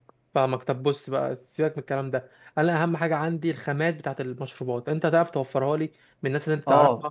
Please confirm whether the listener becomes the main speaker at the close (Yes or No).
Yes